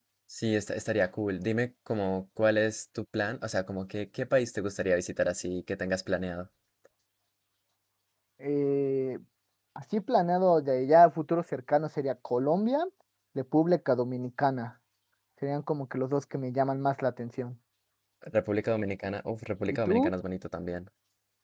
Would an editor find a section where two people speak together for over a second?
No

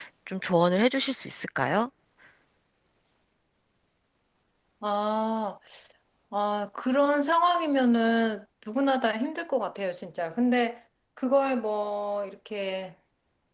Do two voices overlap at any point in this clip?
No

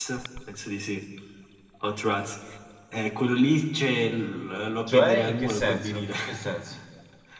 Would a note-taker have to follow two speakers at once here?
Yes, from 4.9 s

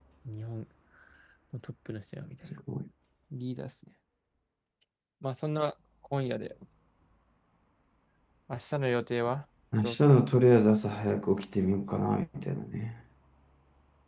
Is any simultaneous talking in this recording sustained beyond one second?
No

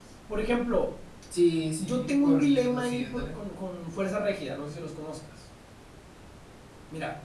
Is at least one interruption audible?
Yes, from 1.8 s

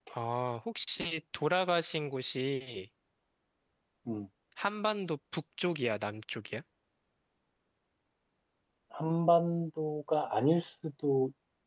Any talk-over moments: No

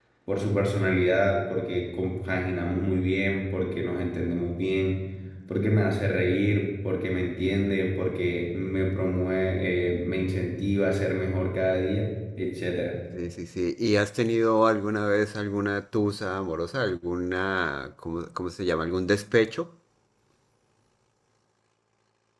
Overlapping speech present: No

